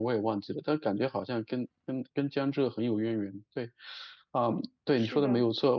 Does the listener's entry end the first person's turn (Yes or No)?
No